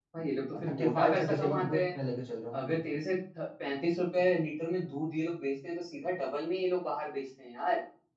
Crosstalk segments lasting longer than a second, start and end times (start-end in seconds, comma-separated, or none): 0.6-1.9